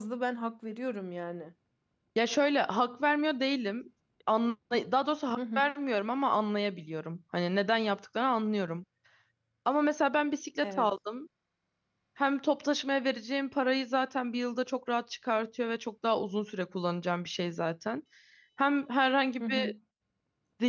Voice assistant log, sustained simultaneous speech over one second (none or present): none